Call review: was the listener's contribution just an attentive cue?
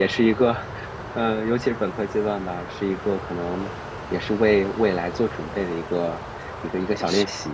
No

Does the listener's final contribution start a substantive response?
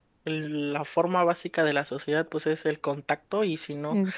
No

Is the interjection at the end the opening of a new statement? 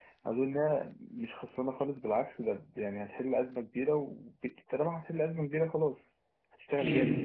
Yes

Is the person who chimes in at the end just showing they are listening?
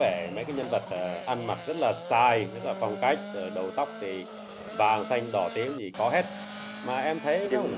No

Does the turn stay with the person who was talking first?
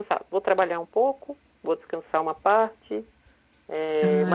Yes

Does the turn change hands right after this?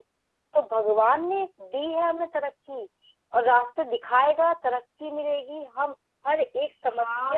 Yes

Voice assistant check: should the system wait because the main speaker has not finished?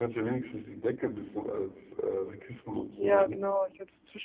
No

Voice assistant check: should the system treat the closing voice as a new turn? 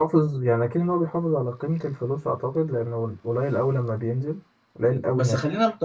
Yes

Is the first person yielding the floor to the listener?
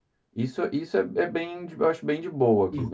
Yes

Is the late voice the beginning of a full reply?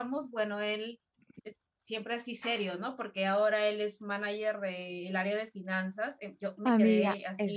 Yes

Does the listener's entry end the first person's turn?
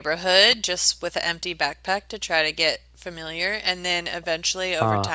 No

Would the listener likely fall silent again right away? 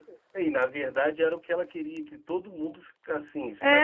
No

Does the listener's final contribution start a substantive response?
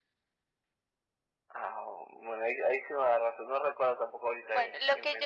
Yes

